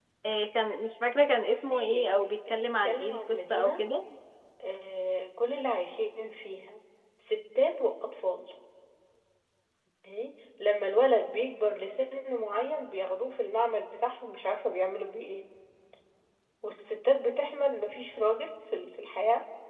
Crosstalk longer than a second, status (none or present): present